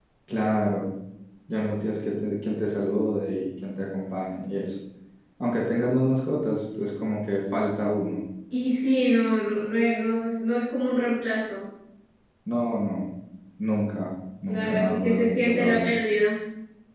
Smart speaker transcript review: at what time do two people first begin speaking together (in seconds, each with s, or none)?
14.5 s